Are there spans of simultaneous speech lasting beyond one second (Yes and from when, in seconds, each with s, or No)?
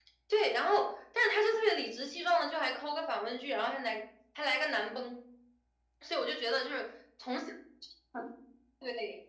No